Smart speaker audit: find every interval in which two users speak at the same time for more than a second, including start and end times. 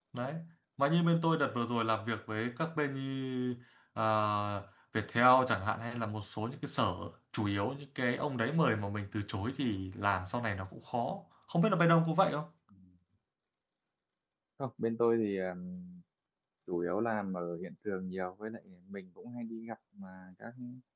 none

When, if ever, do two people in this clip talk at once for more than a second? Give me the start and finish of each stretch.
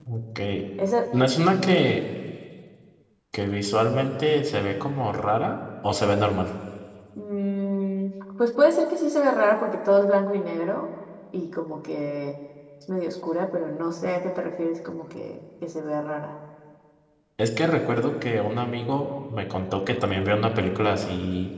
none

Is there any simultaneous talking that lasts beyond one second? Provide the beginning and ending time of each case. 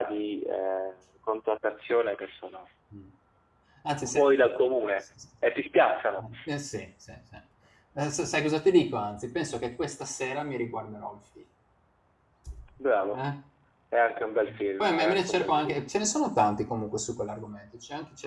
14.5-15.8

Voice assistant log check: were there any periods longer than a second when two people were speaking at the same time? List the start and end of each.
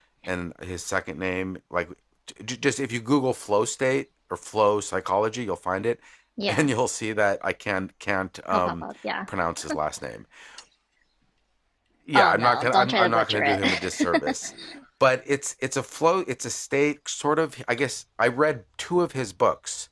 12.1-14.3

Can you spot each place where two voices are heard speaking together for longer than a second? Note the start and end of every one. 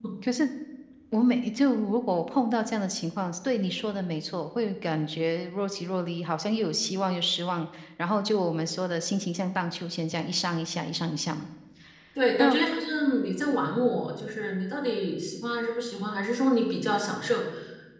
none

